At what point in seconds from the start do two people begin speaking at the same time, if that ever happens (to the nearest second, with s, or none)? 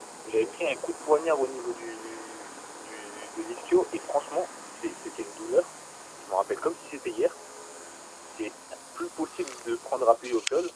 none